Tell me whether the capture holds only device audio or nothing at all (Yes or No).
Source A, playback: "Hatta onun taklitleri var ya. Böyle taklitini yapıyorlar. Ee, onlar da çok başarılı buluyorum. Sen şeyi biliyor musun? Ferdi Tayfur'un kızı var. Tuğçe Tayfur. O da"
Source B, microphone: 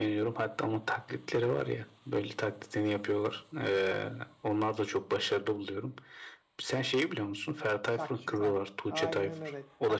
No